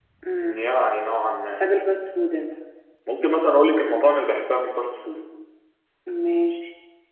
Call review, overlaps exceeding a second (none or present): none